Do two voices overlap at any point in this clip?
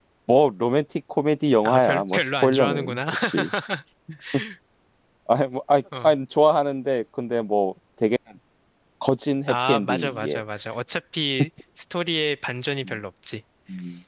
Yes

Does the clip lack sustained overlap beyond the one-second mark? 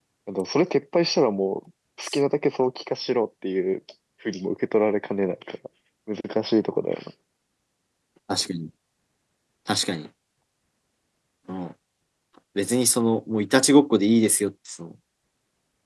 Yes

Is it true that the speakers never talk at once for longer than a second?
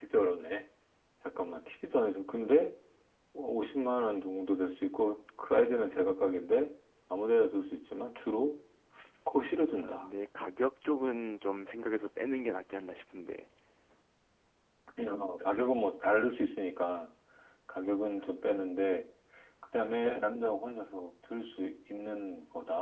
Yes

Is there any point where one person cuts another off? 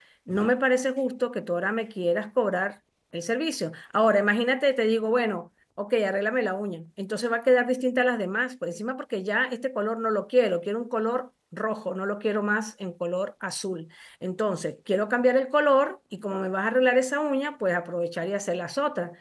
No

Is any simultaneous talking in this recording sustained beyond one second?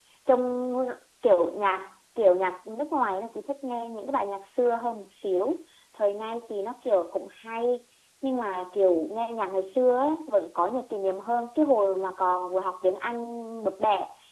No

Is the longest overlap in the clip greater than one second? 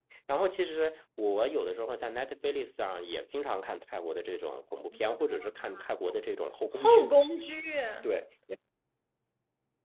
No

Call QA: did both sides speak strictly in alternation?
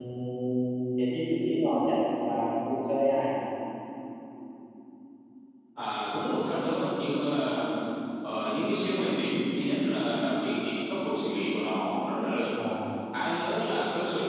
Yes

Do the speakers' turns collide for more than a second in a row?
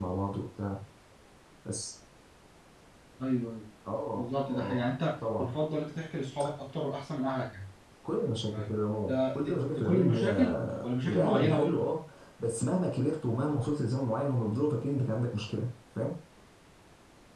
Yes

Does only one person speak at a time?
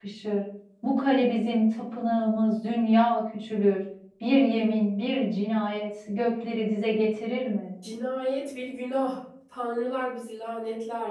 Yes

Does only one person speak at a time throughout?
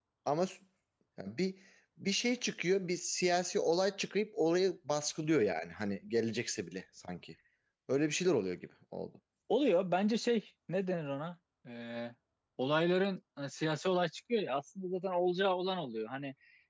Yes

